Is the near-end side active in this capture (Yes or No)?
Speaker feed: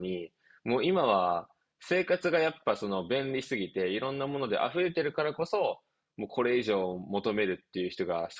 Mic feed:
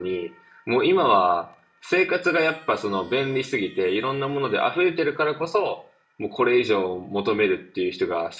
No